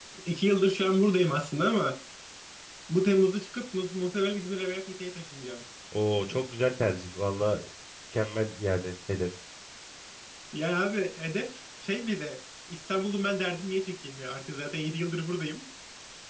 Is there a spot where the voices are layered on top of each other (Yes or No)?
No